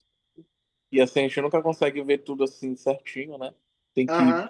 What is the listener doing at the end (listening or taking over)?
listening